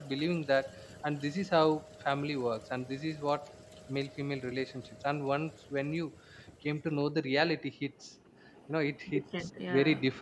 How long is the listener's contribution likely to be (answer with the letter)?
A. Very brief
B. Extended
A